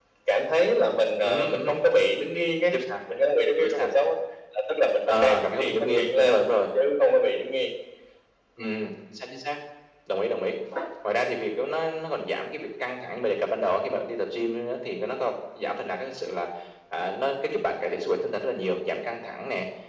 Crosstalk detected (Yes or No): Yes